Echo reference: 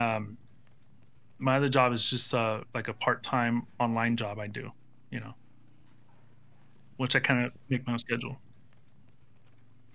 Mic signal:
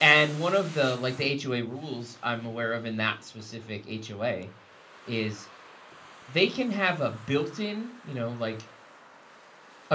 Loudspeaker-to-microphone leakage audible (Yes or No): No